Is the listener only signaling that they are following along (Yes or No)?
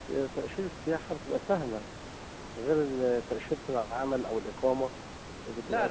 No